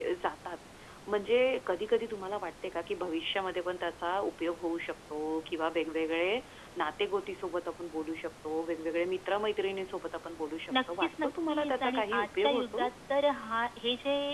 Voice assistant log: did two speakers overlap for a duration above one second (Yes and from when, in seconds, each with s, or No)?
Yes, from 11.0 s